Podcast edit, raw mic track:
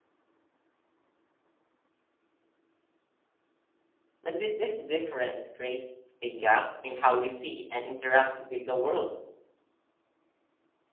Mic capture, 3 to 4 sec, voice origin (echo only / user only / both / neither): neither